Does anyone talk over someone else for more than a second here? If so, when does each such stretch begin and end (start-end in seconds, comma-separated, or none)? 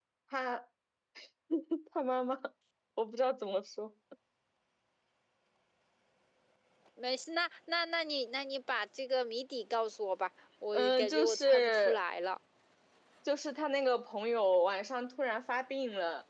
10.7-12.0